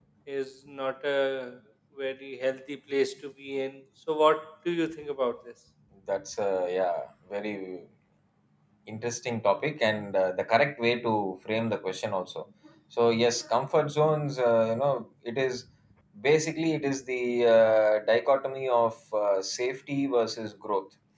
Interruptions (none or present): none